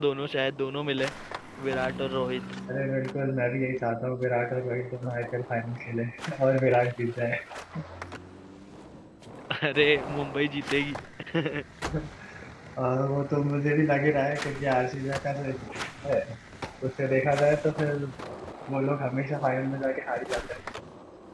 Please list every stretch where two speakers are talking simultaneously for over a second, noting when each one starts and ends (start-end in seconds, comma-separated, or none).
none